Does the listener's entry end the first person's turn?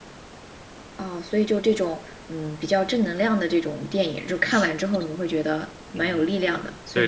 Yes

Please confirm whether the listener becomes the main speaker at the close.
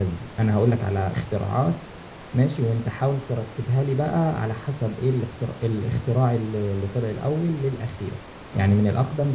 No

